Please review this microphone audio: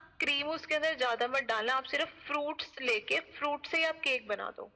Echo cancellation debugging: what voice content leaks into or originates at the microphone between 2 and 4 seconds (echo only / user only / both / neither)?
echo only